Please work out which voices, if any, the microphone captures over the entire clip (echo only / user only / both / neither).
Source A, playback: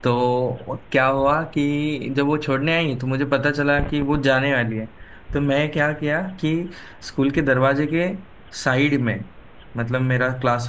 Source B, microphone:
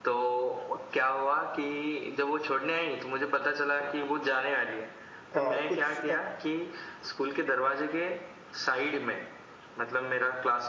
both